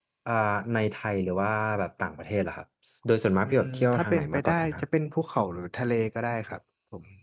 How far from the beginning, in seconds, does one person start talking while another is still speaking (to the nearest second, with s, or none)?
3 s